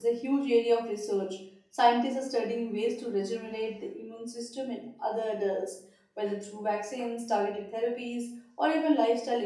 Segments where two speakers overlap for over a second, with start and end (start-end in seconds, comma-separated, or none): none